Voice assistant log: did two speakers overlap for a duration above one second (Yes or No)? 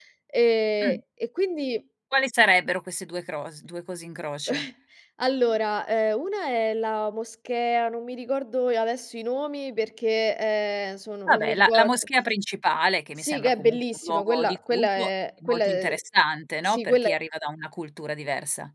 Yes